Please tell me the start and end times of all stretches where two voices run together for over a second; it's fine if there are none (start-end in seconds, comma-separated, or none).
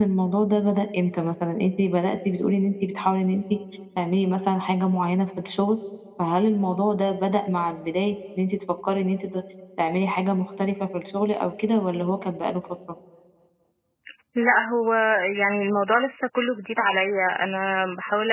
none